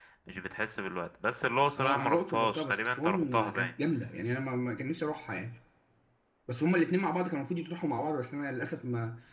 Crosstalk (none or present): present